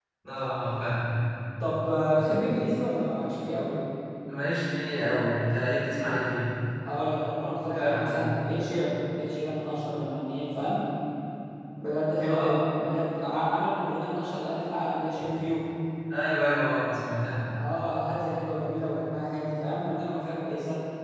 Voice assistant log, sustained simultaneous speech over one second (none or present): none